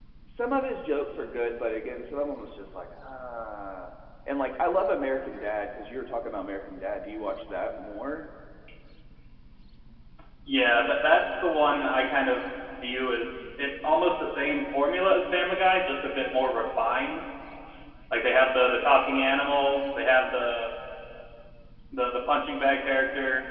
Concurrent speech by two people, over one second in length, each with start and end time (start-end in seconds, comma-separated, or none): none